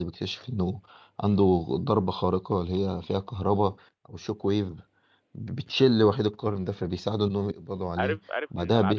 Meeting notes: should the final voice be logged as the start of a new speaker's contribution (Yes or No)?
Yes